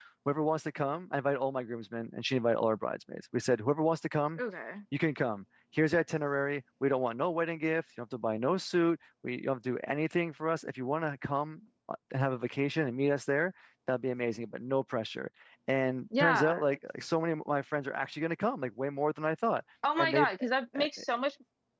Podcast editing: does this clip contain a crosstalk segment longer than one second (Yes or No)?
No